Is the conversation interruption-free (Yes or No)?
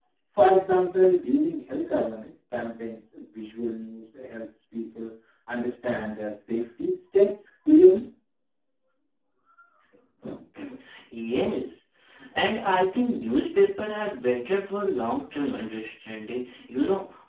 Yes